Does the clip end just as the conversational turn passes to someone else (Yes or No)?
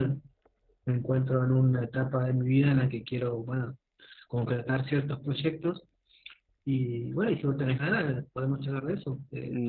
Yes